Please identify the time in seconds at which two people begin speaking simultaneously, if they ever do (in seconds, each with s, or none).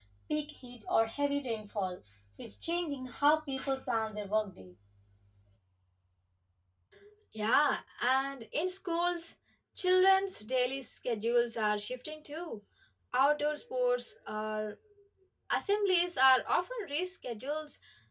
none